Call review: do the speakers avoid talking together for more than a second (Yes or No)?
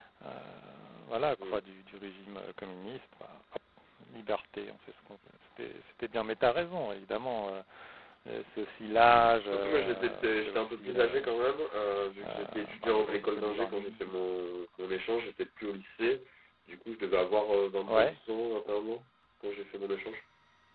No